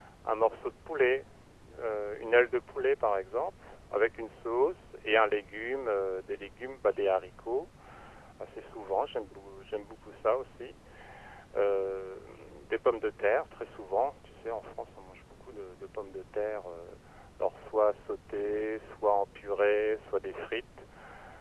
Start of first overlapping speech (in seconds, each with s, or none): none